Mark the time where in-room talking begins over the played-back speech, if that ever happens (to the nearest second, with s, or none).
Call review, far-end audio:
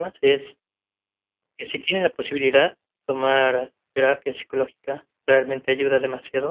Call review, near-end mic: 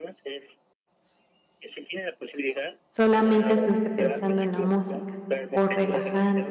3 s